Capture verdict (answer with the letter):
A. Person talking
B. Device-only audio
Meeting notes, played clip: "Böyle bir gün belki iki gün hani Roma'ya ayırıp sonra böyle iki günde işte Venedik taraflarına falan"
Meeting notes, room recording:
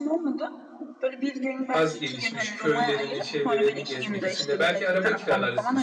A